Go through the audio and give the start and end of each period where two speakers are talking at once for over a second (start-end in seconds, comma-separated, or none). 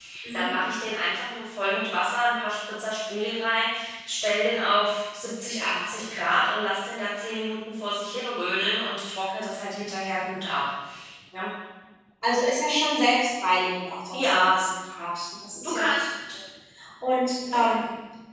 none